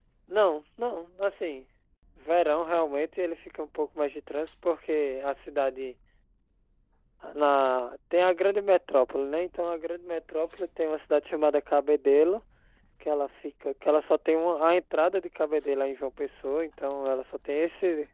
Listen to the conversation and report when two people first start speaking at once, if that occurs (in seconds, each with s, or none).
none